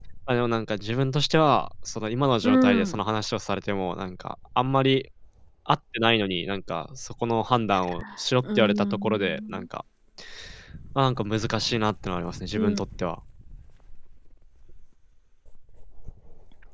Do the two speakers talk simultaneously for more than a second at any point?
Yes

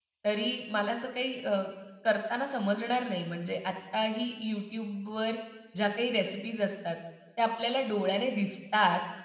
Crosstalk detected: No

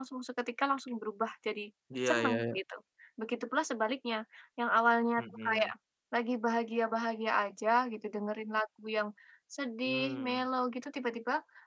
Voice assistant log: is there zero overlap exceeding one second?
Yes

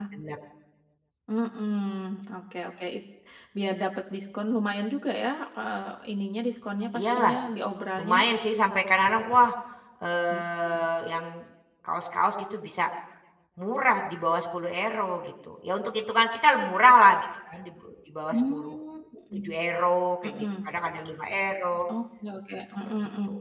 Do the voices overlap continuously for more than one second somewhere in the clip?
No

